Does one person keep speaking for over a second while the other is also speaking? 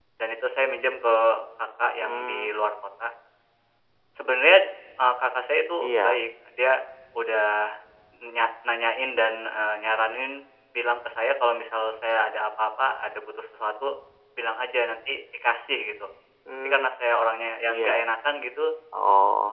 No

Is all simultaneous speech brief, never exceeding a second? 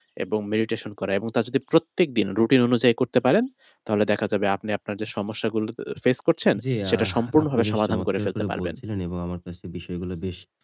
No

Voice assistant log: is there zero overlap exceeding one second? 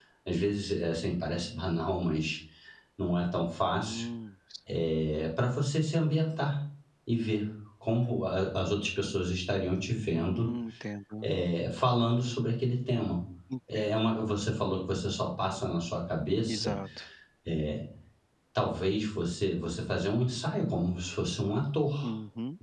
Yes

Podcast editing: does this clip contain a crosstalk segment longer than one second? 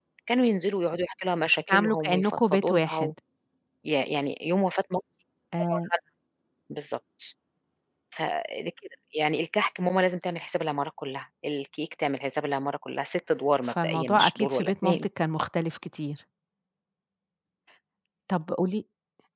Yes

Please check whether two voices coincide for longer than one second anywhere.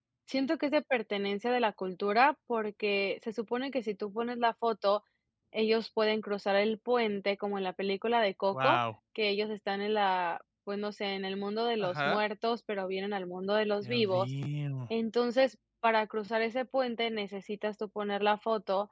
No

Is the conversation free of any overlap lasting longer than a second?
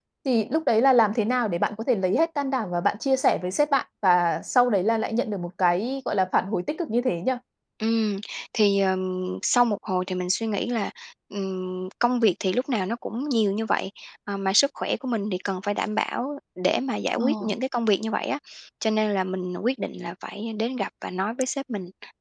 Yes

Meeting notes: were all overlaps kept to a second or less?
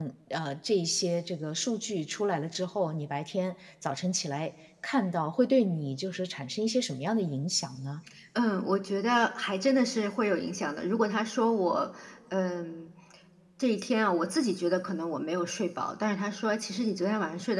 Yes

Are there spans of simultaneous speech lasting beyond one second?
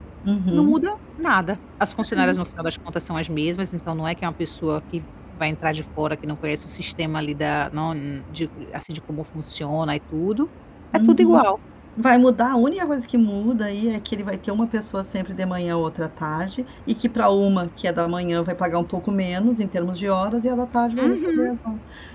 No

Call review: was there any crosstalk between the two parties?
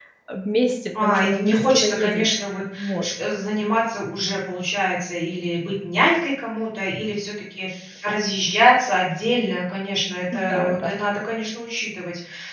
Yes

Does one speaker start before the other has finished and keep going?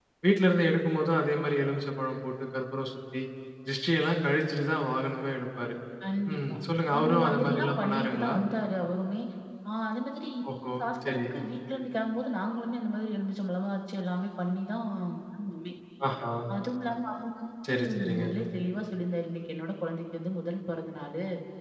Yes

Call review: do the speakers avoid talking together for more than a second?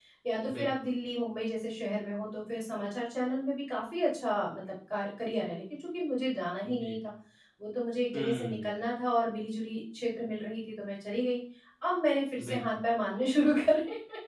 Yes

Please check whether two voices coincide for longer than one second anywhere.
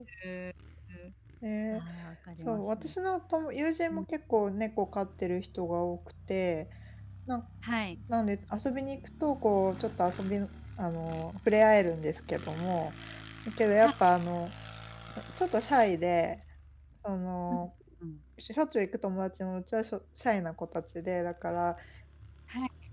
No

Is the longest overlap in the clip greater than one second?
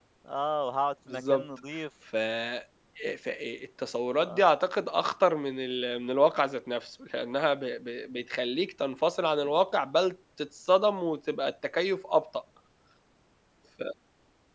No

